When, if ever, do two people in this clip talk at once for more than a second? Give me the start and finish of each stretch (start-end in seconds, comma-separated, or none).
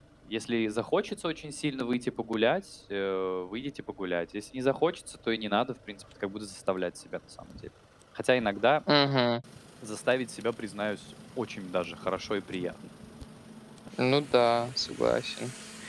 none